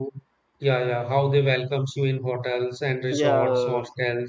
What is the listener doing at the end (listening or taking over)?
listening